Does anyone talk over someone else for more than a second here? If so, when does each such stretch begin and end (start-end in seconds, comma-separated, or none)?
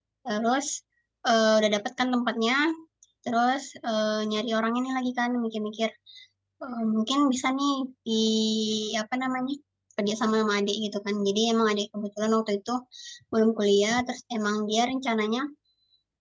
none